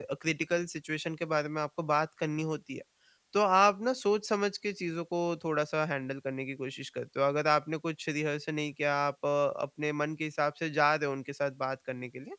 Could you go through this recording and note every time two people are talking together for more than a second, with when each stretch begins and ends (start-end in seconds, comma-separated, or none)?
none